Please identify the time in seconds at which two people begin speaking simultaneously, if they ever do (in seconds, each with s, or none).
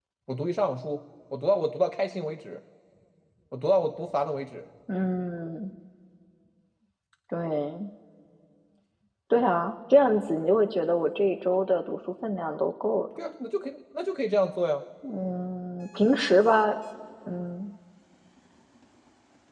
none